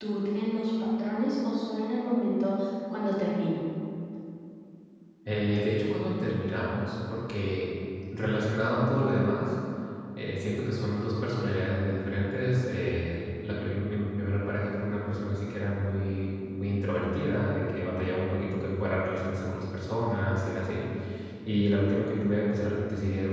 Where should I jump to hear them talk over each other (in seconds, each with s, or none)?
none